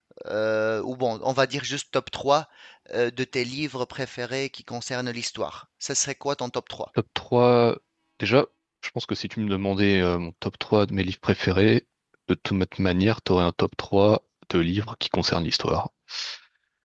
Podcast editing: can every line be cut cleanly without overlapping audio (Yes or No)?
Yes